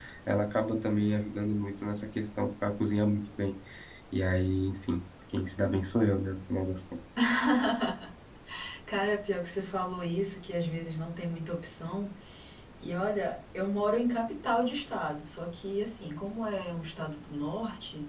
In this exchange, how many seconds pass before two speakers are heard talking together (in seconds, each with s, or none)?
none